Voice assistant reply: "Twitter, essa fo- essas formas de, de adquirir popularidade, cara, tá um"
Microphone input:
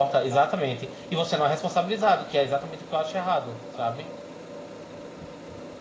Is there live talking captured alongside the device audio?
Yes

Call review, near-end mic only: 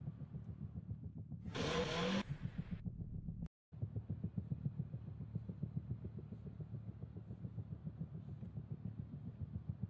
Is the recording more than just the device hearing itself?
No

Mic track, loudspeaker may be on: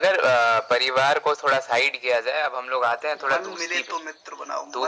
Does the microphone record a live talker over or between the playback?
No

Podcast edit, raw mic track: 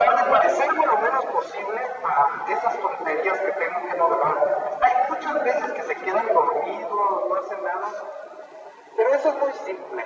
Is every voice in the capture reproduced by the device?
Yes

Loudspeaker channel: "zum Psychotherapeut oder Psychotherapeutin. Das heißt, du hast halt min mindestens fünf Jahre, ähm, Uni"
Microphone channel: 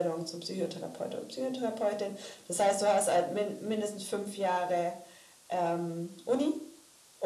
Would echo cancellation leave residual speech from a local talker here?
No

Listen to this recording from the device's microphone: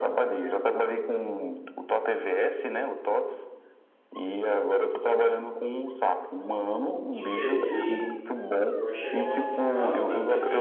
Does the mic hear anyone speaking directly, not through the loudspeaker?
Yes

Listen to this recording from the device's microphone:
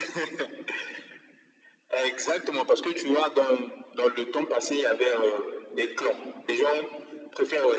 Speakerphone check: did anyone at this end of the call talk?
No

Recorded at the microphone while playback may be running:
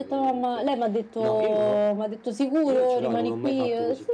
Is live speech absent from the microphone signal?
Yes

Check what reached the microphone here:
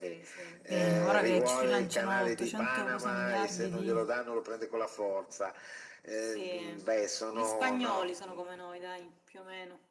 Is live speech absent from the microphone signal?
No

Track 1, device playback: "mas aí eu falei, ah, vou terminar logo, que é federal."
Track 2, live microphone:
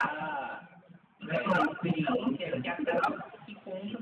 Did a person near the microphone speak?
Yes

